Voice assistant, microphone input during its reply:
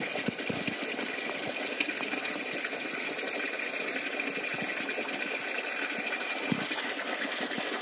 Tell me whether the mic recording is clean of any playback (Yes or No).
Yes